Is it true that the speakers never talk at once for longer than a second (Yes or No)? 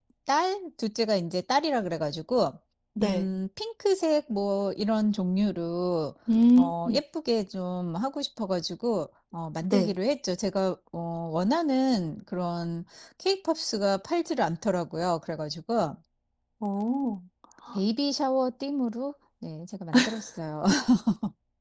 Yes